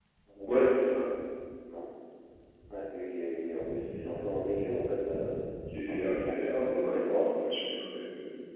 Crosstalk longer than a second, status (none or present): present